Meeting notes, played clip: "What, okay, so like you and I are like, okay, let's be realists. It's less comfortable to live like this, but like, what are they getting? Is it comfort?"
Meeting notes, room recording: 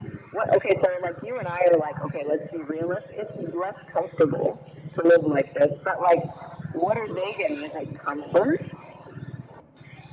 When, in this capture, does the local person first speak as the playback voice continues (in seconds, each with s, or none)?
none